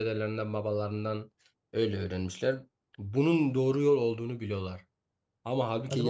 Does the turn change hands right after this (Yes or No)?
No